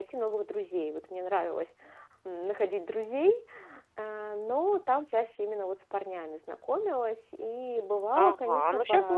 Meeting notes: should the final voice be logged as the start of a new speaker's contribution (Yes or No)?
Yes